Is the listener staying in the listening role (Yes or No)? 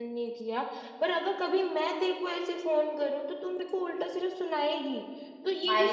Yes